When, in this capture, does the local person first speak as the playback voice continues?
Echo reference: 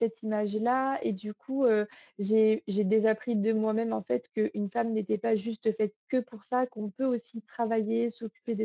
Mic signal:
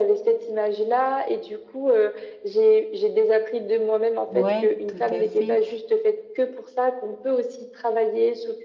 4.3 s

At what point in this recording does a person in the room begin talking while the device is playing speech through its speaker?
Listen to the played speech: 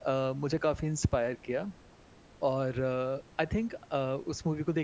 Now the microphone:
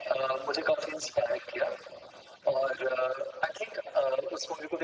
none

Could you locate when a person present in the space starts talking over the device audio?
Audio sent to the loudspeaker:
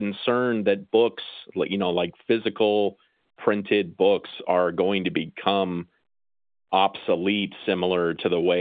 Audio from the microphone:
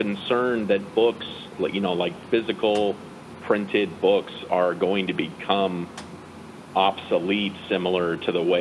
none

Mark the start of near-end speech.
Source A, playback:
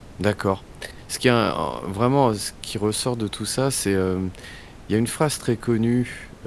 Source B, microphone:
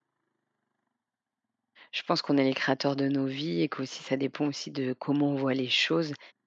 1.9 s

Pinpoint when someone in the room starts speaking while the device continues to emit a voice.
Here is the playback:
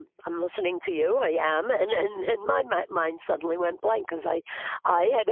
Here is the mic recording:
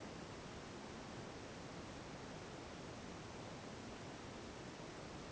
none

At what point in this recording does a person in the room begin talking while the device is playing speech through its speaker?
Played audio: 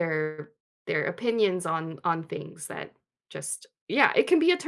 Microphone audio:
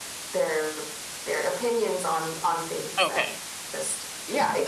3.0 s

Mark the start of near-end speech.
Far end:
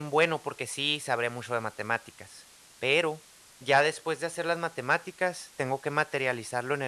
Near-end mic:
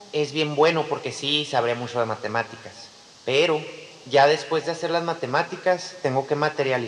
none

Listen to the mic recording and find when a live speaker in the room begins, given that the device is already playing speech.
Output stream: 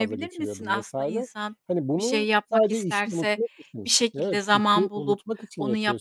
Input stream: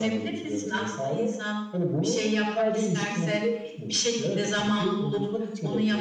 none

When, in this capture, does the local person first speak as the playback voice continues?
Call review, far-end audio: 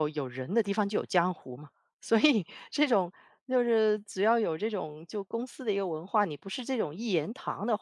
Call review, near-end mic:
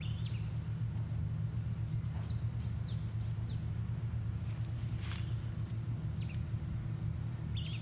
none

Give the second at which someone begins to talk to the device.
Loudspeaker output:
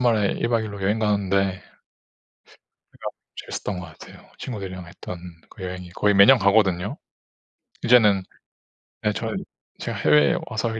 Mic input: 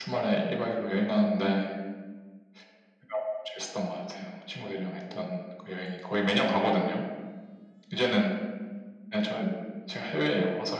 none

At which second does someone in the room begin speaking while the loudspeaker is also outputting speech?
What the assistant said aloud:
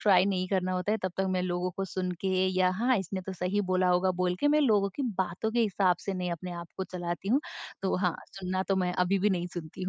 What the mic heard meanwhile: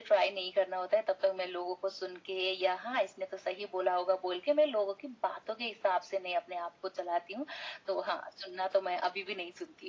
none

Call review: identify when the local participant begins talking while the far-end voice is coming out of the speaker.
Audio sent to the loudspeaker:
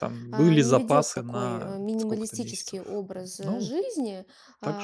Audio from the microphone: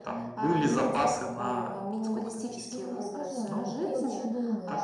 2.7 s

